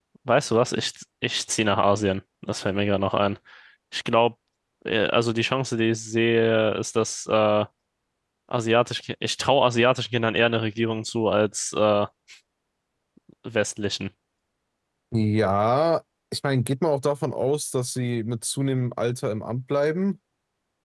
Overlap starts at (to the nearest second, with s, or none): none